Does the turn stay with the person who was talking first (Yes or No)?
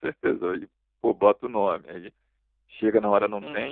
Yes